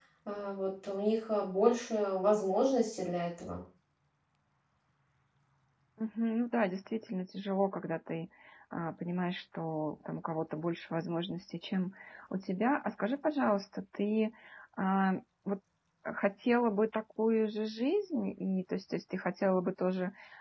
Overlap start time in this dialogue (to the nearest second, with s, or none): none